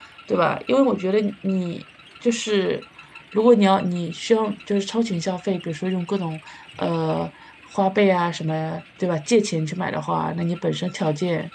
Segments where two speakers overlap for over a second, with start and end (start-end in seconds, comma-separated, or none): none